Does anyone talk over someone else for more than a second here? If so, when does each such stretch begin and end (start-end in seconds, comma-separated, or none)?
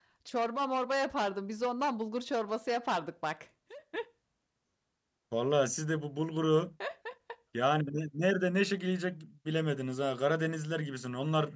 none